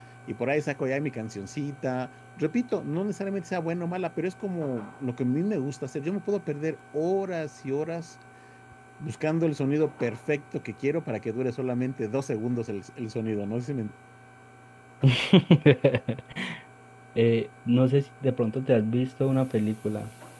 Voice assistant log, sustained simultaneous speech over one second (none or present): none